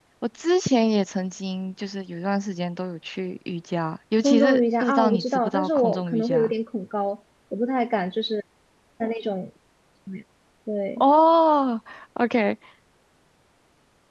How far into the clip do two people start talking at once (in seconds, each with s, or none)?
4.2 s